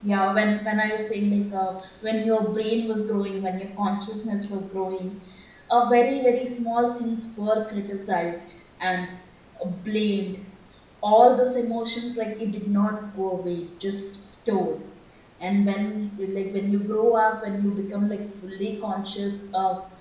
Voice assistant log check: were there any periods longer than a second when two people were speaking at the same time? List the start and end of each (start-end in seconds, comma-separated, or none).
none